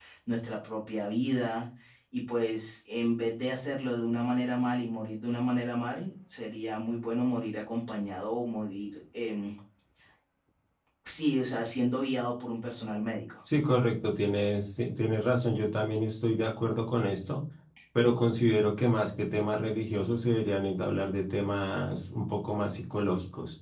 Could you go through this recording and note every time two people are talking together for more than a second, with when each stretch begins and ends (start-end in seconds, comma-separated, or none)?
none